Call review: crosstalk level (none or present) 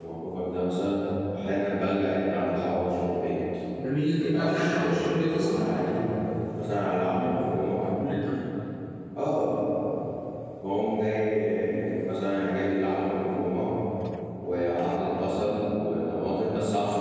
present